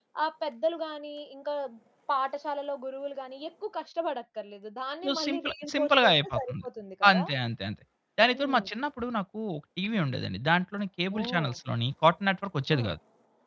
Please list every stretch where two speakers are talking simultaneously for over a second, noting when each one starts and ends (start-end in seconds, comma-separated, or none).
5.0-6.5